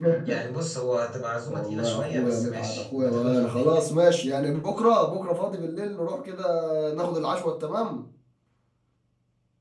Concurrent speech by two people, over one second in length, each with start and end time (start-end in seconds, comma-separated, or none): 1.5-3.6